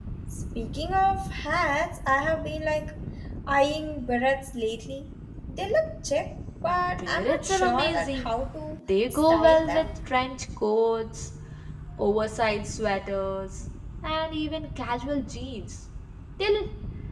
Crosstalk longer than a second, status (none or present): present